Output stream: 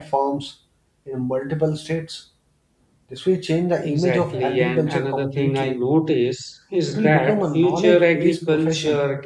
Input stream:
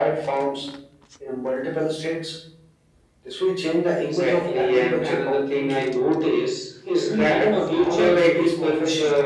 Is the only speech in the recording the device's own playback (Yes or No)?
No